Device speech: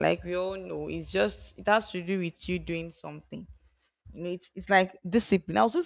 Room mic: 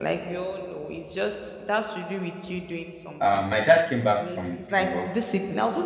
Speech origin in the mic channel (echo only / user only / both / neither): both